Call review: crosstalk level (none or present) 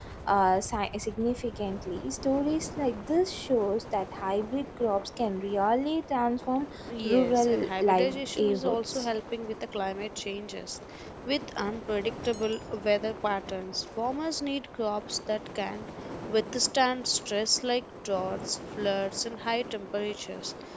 present